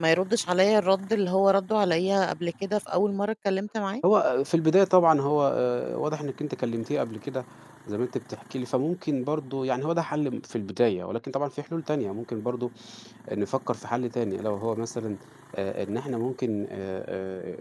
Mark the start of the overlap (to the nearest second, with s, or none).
none